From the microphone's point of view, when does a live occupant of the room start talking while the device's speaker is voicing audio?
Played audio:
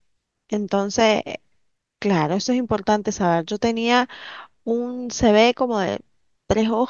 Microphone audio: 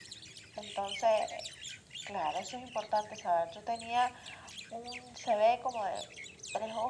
none

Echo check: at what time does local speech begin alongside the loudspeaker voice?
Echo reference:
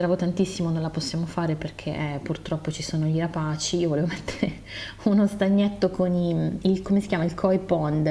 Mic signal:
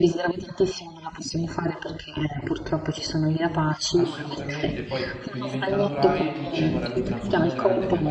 4 s

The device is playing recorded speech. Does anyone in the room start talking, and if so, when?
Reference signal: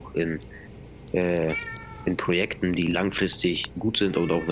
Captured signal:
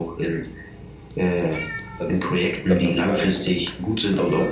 2 s

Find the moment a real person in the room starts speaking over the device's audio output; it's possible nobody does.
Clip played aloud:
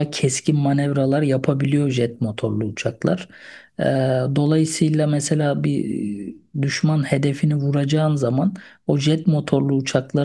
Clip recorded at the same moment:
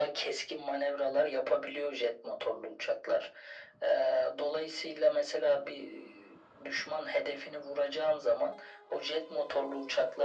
none

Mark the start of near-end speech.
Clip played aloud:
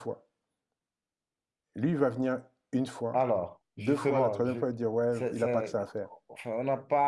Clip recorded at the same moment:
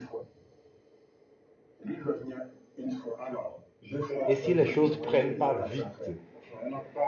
4 s

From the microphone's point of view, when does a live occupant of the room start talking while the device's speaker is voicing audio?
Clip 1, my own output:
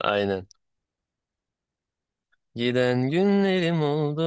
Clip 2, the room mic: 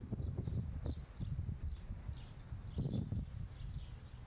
none

